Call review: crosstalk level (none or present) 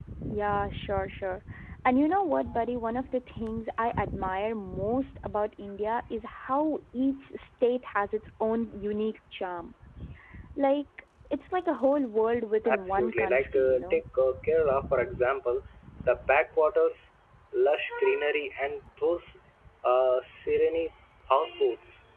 present